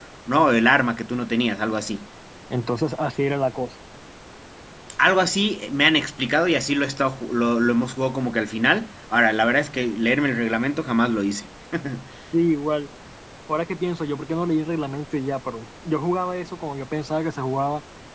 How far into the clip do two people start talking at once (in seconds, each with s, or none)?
none